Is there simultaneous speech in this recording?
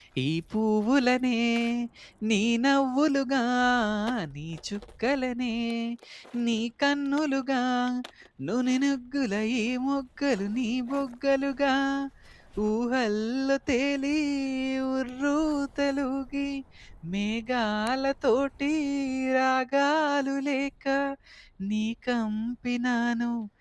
No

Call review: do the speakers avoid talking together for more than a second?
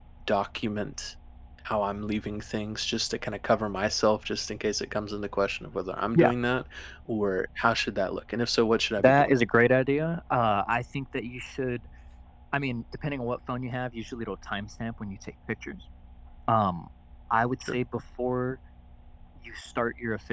Yes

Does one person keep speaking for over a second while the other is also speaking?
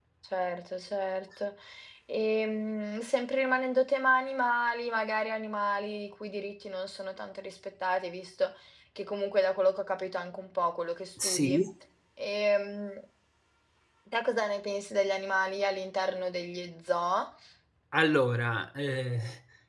No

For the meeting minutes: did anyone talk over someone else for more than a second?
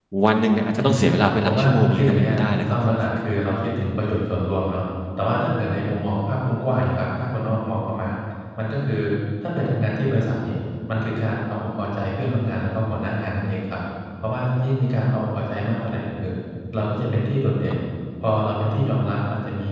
Yes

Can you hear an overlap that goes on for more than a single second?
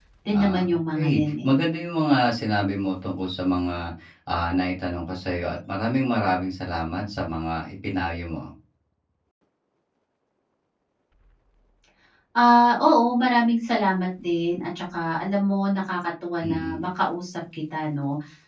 Yes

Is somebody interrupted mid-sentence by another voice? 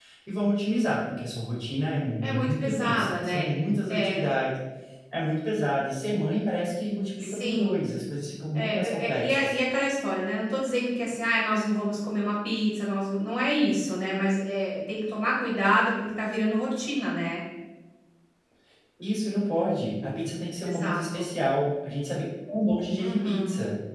Yes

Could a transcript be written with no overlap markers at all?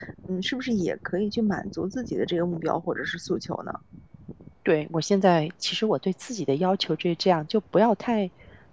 Yes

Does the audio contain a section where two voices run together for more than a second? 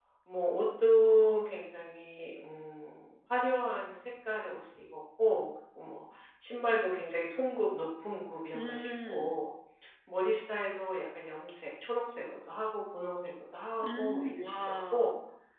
Yes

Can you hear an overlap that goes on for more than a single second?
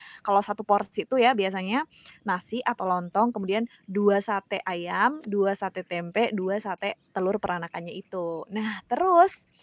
No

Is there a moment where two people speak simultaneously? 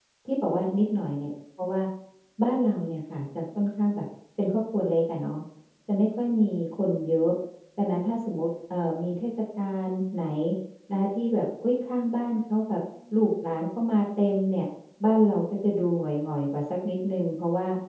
No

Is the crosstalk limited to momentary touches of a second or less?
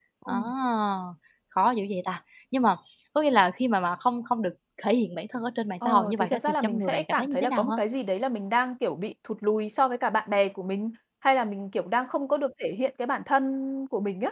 No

